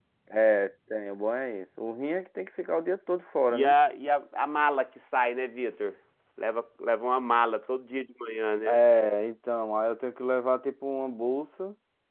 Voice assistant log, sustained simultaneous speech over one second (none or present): none